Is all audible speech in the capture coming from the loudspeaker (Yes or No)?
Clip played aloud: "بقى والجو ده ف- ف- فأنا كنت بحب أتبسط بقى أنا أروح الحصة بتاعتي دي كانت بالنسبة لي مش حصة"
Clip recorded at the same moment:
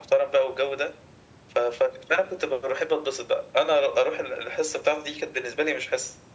Yes